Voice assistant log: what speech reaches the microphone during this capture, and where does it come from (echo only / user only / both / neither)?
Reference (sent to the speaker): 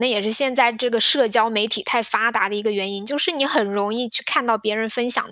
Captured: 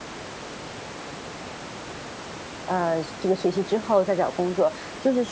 user only